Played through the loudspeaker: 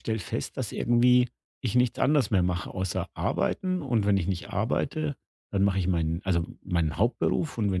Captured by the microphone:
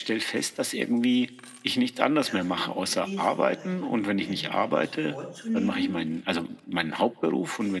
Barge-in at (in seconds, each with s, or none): 2.2 s